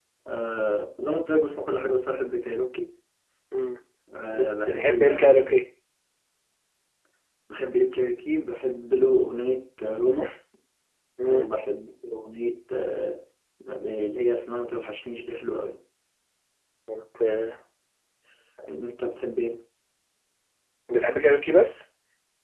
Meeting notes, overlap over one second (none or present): present